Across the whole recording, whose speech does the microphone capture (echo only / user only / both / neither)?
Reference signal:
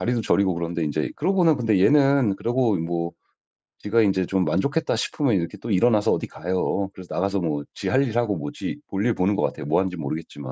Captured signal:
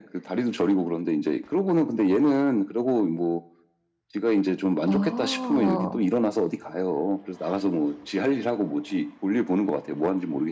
both